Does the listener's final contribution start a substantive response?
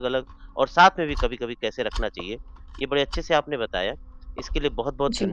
No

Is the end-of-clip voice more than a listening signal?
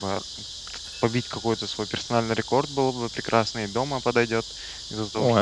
No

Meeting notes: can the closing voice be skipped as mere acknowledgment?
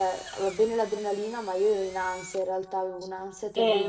No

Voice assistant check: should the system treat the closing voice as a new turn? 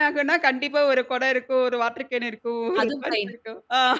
No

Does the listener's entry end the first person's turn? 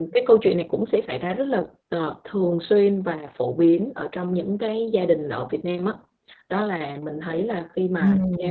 No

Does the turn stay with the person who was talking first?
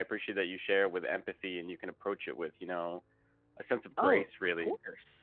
No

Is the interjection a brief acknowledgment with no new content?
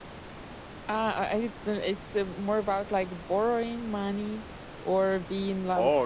No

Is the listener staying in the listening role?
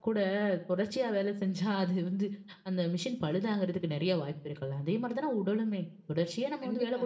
Yes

